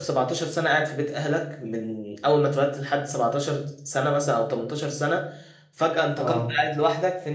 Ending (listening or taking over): listening